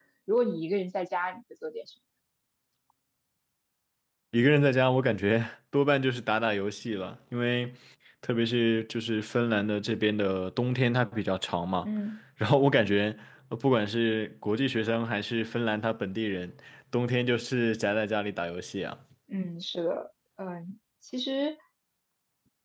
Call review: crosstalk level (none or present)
none